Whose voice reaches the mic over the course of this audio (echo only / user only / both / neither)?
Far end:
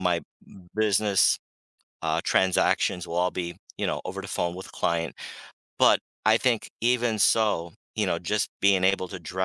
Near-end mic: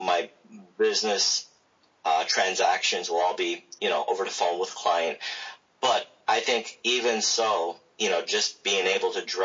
echo only